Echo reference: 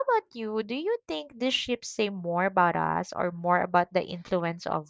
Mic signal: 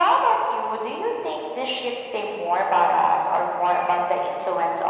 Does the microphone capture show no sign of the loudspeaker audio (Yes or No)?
No